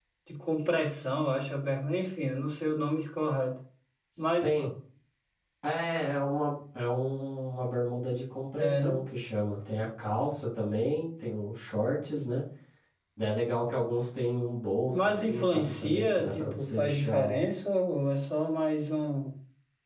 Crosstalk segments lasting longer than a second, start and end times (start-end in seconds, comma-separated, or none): 14.9-17.4